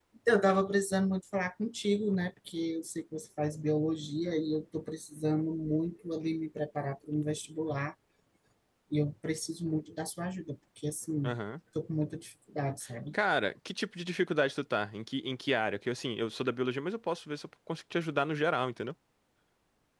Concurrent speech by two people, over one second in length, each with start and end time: none

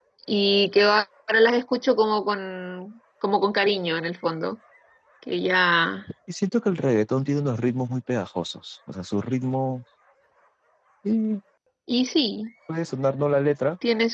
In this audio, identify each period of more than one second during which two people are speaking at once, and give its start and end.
none

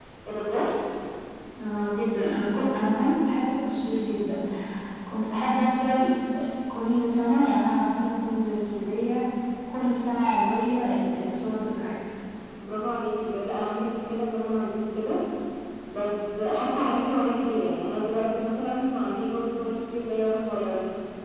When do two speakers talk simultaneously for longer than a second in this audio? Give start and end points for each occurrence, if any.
none

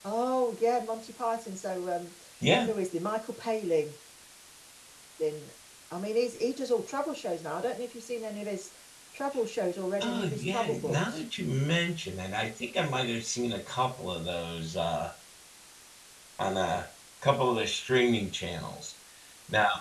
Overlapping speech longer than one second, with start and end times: 10.0-11.2

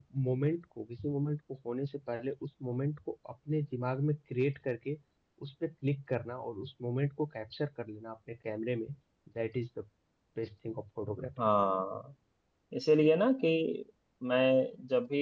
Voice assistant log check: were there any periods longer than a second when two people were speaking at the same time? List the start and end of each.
none

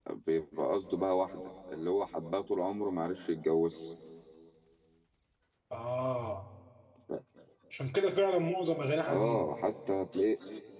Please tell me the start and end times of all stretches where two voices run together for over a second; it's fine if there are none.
none

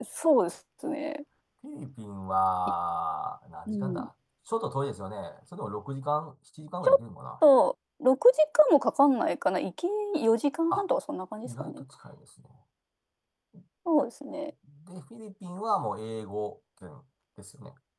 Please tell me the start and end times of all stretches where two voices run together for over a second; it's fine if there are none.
none

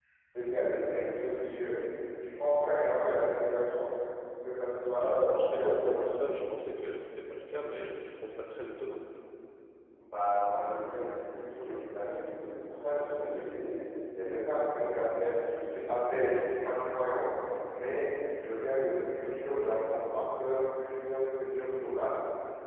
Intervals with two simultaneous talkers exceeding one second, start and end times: 4.8-6.1

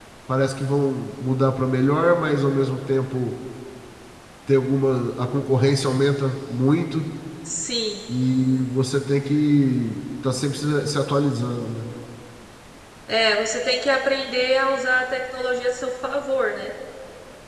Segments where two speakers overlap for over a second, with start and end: none

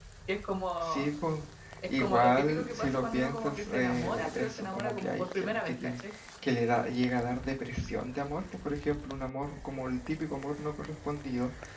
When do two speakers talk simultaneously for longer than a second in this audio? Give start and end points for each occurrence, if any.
2.0-6.0

